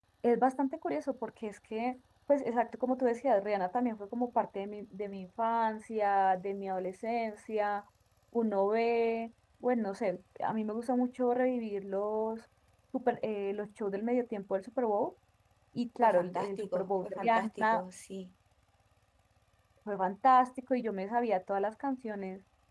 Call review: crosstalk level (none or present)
present